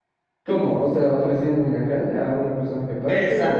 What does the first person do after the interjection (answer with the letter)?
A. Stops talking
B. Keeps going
A